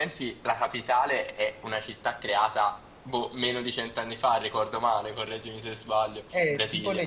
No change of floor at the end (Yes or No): No